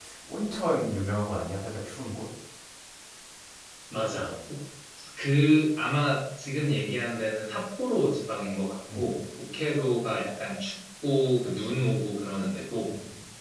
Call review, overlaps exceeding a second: none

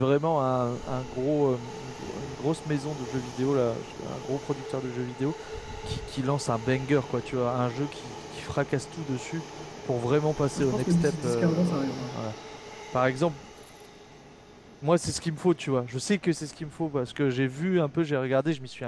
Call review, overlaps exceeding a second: present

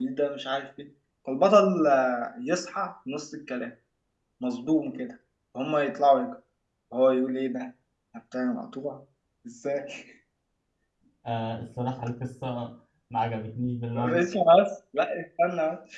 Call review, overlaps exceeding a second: none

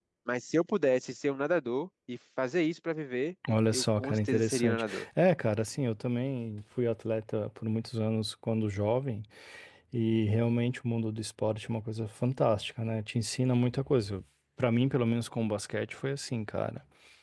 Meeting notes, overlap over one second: present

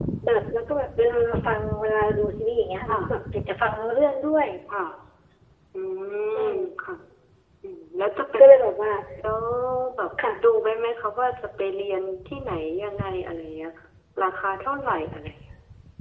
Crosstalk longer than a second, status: none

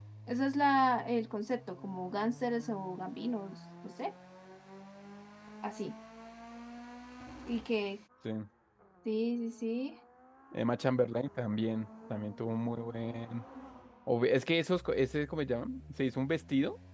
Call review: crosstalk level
none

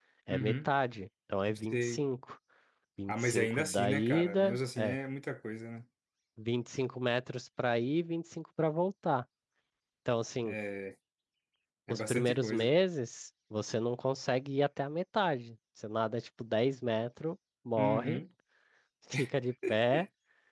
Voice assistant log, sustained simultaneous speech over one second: present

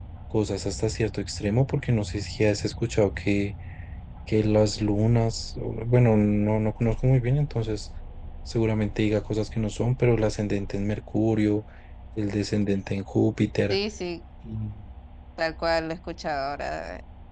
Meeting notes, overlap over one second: none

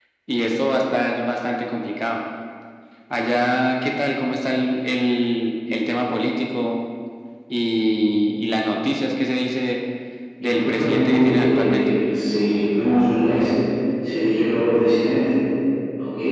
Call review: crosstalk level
present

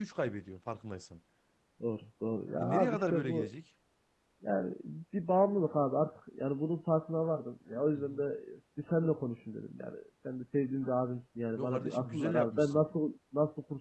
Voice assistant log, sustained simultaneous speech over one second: present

